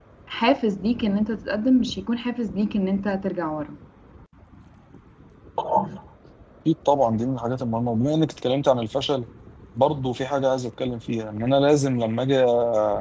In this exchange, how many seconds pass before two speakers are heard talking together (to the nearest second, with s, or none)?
none